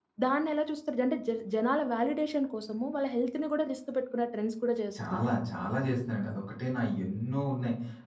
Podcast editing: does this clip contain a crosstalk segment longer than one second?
No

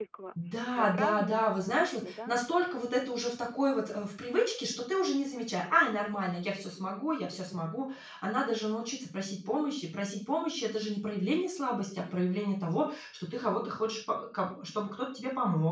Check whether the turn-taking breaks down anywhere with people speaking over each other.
Yes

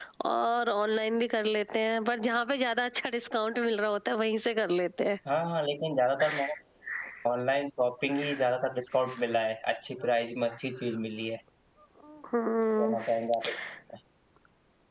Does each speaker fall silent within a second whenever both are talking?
Yes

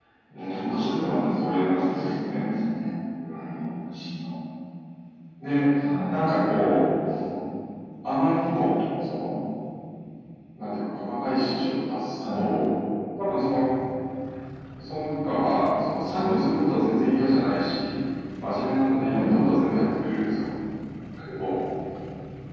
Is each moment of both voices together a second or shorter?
No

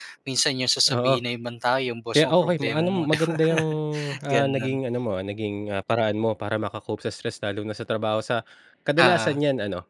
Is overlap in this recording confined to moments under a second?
No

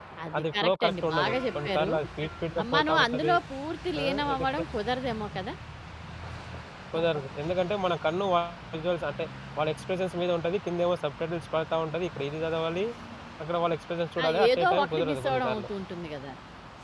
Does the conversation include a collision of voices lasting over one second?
Yes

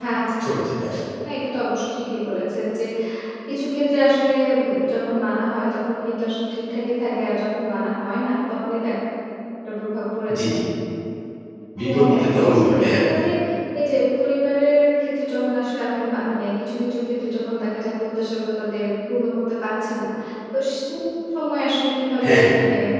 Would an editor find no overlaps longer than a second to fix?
No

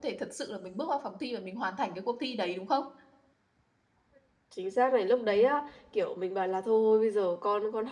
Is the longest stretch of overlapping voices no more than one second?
Yes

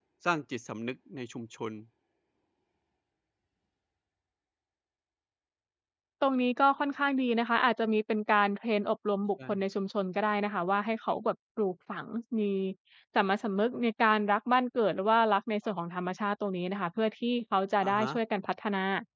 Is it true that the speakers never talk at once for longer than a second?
Yes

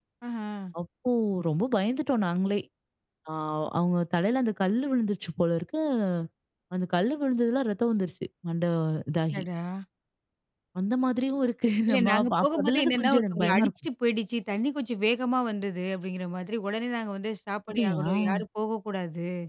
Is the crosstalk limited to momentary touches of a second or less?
No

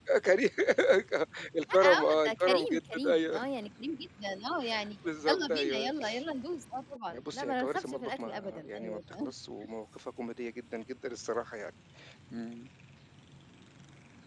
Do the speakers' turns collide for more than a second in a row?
Yes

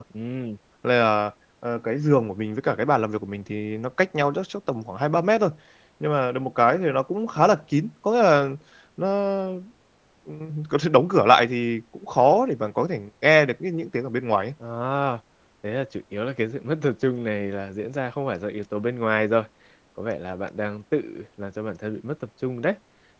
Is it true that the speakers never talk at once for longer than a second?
Yes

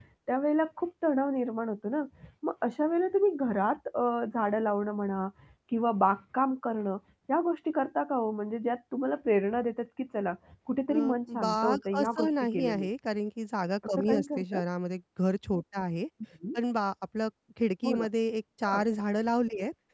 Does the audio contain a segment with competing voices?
Yes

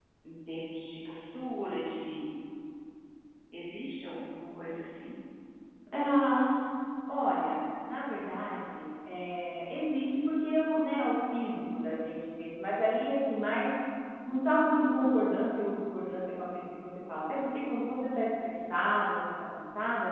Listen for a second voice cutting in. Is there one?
No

